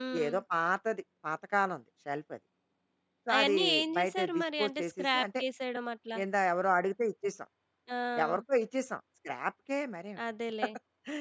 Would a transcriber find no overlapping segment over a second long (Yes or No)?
No